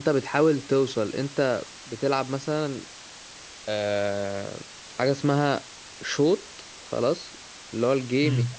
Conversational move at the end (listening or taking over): listening